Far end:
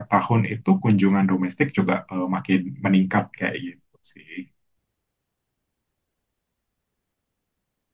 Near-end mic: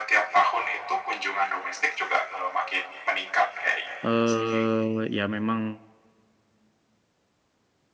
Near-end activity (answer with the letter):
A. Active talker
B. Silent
A